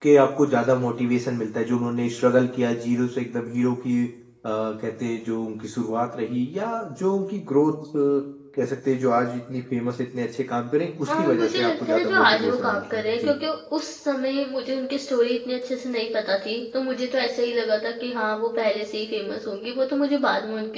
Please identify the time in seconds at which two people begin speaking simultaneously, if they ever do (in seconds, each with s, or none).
11.1 s